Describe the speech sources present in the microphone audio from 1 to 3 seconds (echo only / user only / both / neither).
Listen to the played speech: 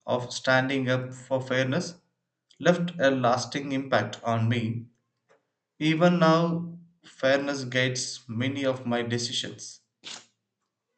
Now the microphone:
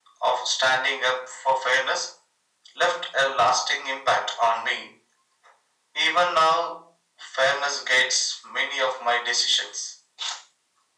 echo only